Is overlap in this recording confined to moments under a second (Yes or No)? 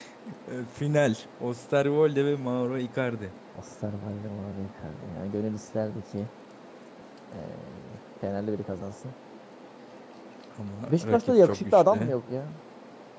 No